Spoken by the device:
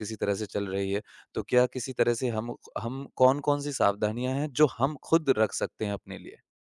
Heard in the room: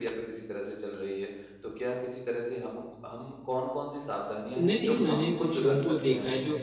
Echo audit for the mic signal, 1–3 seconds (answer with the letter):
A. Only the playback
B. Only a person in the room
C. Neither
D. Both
A